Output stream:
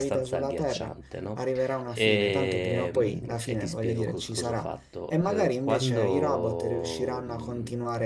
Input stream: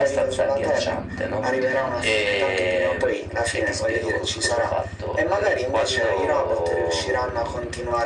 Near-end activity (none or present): none